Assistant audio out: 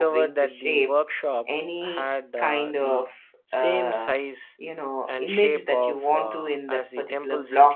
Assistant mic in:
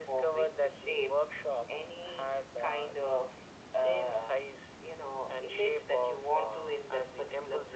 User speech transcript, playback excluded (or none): none